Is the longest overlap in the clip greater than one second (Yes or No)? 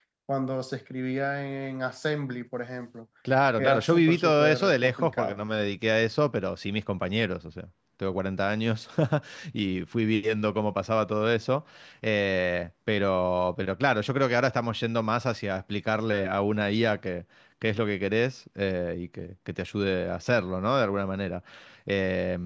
Yes